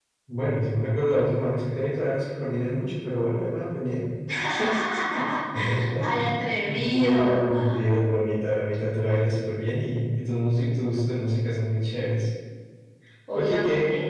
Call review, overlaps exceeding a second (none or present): present